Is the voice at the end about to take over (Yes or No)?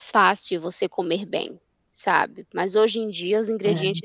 No